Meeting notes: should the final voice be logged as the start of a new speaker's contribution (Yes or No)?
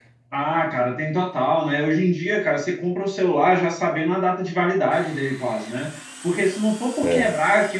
No